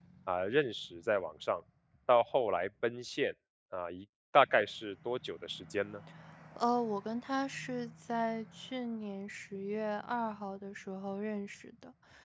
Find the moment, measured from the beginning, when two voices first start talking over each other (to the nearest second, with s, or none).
none